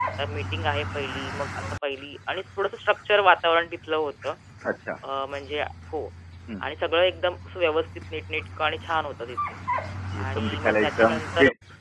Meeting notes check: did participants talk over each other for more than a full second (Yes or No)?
Yes